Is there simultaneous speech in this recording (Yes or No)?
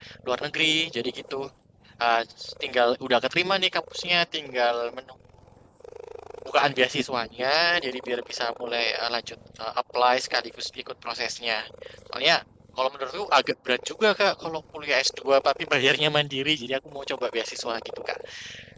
No